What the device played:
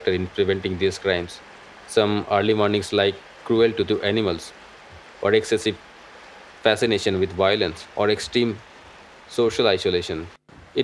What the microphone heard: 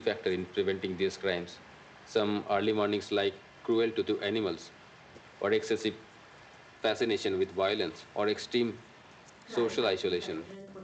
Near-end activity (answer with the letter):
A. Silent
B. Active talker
B